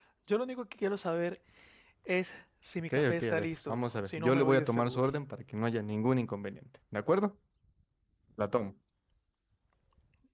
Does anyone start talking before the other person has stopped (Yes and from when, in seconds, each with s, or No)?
Yes, from 2.9 s